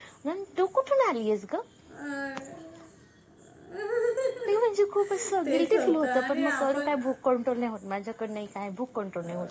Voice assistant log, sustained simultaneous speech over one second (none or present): present